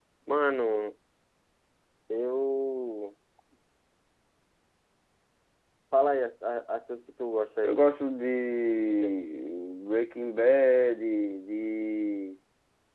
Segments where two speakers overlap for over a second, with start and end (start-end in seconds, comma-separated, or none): none